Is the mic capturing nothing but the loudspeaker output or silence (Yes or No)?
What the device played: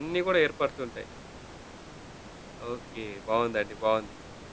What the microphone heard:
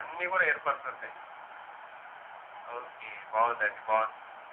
Yes